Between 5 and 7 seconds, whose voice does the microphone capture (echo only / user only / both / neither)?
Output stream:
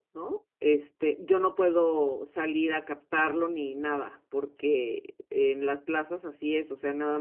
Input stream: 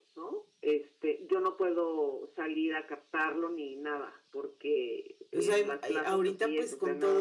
both